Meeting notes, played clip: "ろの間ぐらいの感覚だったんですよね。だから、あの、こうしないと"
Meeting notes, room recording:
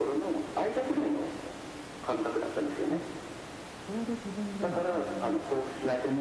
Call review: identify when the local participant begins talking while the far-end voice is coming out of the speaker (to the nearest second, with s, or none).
3 s